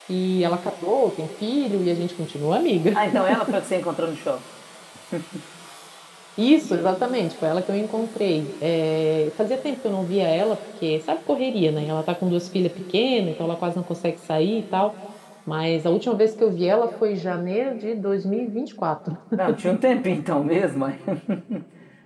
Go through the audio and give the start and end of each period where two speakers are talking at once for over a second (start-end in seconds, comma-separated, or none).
none